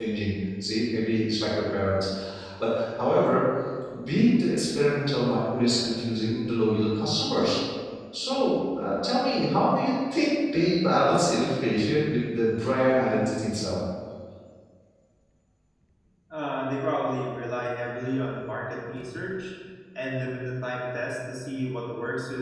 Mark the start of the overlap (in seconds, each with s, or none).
none